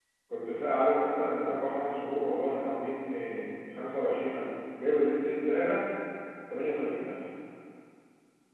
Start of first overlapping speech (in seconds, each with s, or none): none